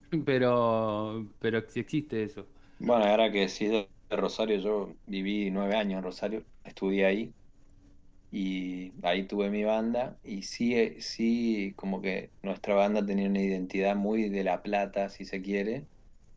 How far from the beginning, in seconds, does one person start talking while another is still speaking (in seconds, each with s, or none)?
none